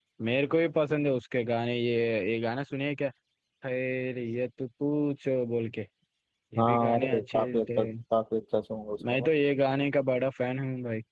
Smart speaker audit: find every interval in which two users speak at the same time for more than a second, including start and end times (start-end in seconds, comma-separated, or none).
6.6-7.8